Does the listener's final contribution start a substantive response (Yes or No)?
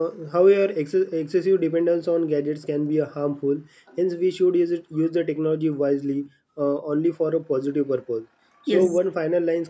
No